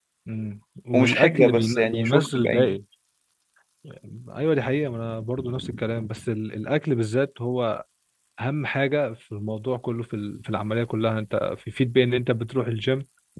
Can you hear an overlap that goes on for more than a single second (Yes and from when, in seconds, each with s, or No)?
Yes, from 0.9 s